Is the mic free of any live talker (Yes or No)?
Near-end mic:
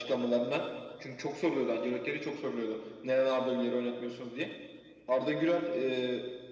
Yes